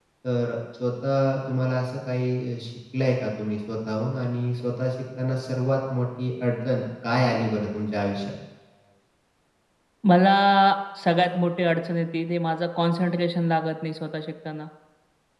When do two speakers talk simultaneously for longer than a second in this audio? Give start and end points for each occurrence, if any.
none

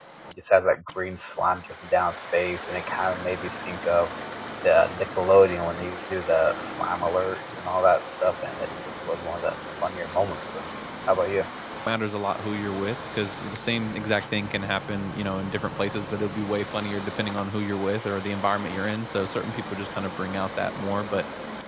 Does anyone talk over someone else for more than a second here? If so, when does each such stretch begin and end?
none

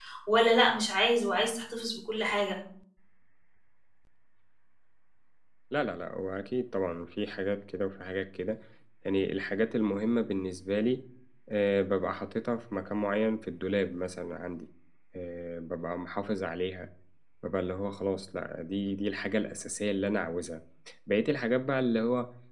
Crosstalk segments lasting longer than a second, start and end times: none

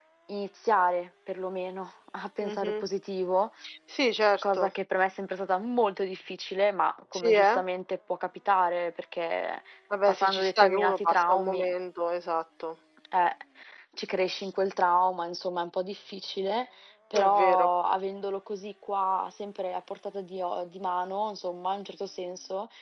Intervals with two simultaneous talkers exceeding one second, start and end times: 10.1-11.7

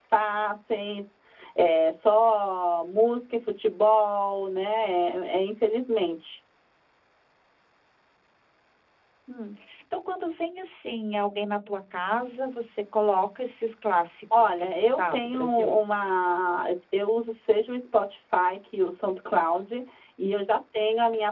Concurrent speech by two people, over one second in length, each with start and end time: 14.4-15.7

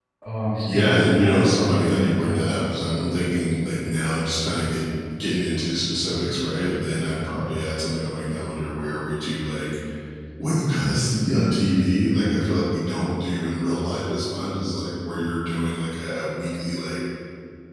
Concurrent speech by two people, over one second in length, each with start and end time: 0.7-2.7

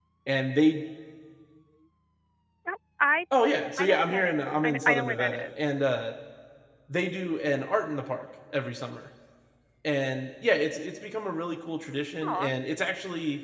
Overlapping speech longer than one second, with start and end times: 3.8-5.5

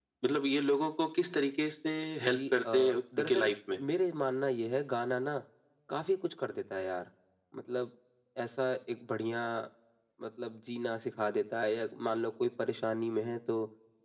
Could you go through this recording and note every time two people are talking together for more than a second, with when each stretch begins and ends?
2.2-3.5

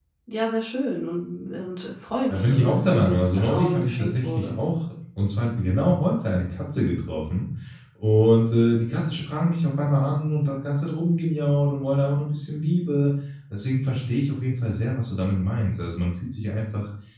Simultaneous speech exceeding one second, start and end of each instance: 2.3-4.6

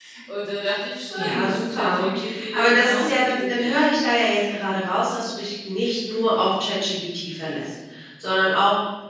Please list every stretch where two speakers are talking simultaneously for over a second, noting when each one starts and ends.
1.1-3.7

